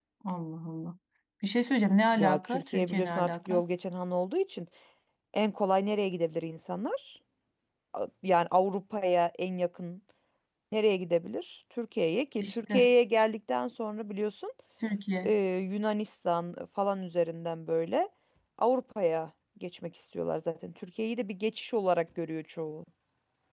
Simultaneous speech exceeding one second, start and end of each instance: 2.2-3.6

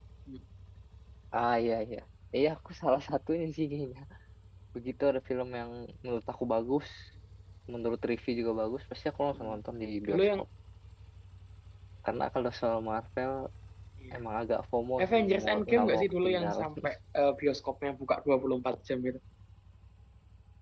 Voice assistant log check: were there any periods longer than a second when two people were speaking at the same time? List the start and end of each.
15.0-16.7

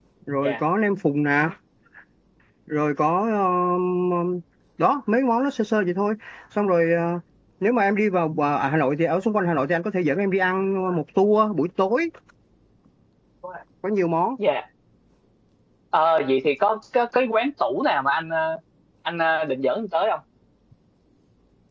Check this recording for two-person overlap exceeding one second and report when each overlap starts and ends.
none

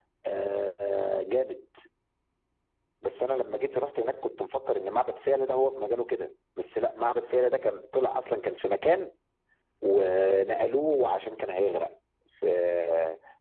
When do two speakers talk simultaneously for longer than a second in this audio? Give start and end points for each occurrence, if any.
none

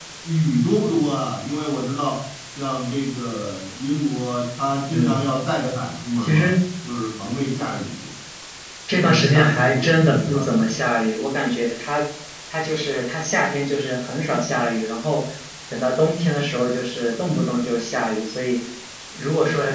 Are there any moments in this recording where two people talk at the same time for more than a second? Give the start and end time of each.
8.9-10.8

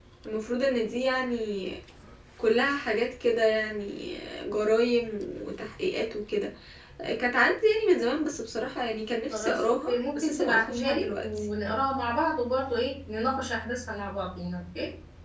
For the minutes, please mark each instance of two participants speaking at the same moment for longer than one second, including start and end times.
9.3-11.2

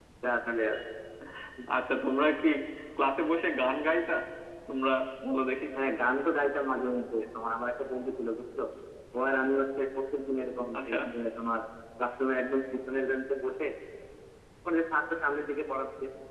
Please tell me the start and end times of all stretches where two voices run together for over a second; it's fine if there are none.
none

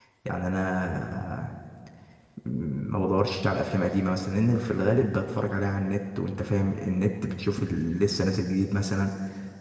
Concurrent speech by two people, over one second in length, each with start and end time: none

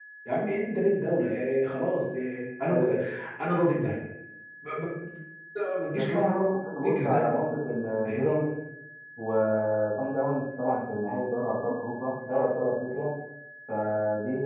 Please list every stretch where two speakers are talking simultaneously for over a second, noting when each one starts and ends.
none

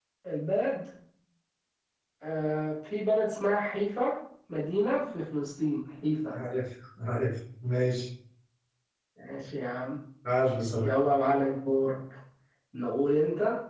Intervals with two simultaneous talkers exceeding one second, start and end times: none

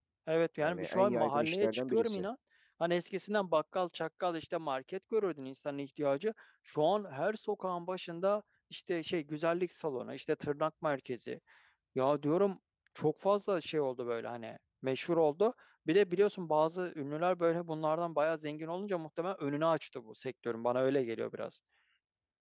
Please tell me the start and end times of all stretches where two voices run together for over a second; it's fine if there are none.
0.6-2.3

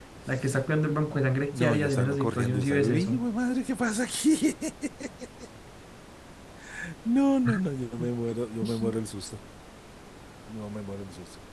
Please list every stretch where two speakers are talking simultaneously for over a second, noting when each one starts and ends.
1.5-3.3

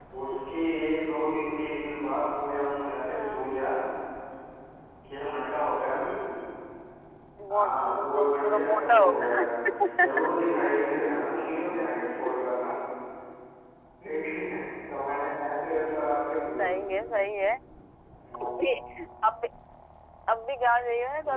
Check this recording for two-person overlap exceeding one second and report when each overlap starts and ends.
7.5-9.5

